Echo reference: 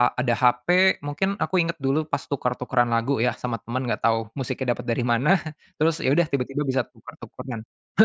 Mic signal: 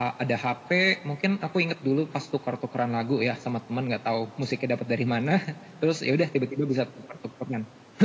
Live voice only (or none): none